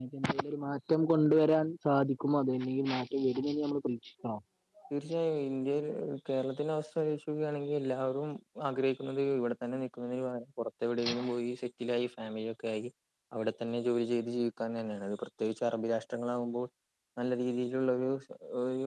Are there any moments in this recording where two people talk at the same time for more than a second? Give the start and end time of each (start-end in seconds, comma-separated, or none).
none